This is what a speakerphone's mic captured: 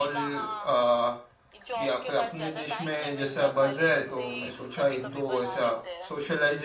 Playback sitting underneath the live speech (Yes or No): Yes